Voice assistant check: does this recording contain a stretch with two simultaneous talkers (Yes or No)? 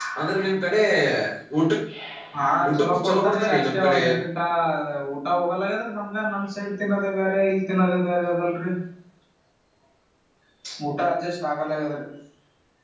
Yes